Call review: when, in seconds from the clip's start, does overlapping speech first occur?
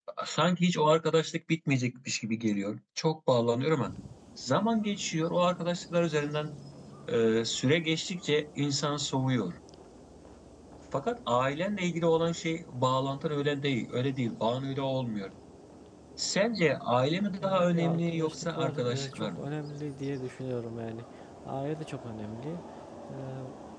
17 s

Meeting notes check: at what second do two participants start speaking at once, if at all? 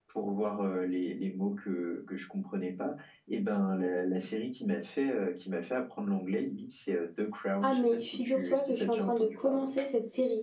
8 s

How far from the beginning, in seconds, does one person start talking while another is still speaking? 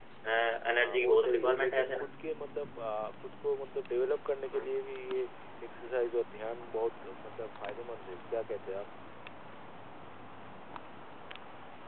1 s

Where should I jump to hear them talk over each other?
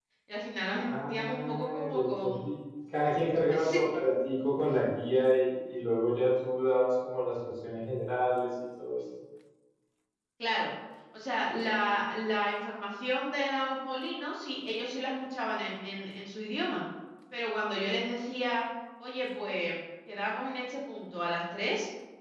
1 s

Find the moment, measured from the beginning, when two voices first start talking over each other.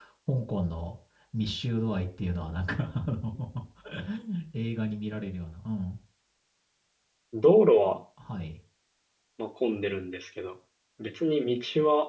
none

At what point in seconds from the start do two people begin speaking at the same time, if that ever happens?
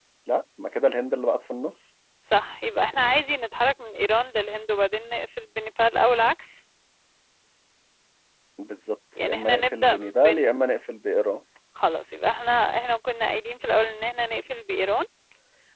9 s

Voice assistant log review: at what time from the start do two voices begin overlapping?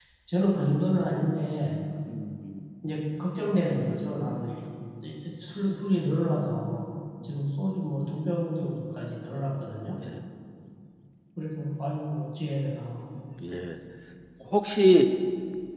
none

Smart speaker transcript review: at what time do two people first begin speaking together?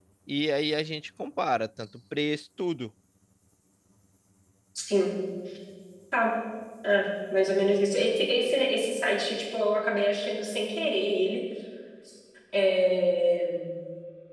none

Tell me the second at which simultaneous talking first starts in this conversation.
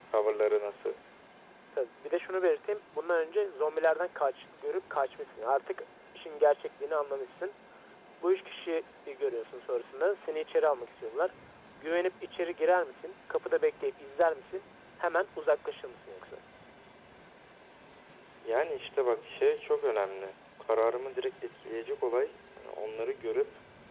none

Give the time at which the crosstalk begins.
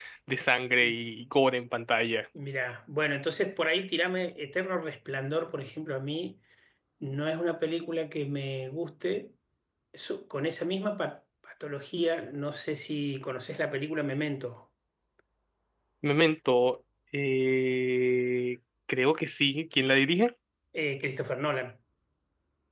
none

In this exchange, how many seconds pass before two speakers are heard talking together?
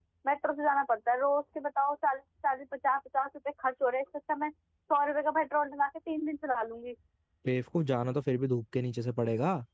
none

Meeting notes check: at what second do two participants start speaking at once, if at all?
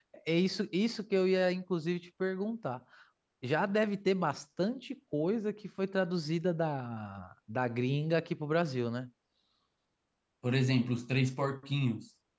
none

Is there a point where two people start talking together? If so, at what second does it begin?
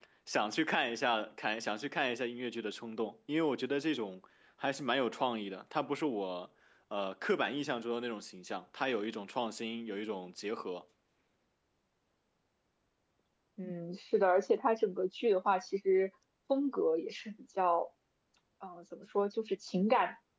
none

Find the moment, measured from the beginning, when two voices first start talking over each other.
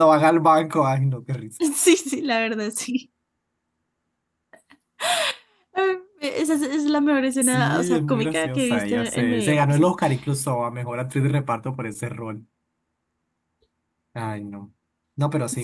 7 s

